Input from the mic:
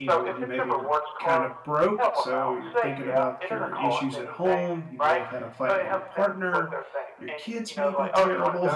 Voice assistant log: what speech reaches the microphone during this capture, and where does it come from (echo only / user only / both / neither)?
both